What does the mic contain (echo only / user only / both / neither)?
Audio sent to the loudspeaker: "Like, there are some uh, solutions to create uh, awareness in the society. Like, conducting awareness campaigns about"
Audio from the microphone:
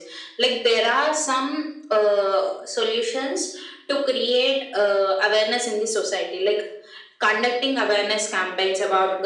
echo only